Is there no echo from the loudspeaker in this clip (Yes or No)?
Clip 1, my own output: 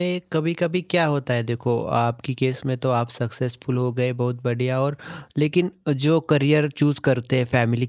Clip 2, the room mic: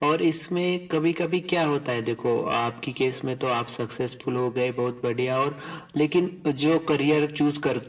No